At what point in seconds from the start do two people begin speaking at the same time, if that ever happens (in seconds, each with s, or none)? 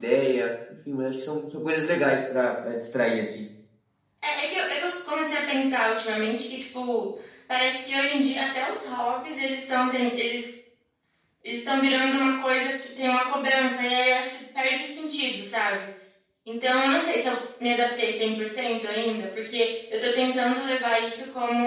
none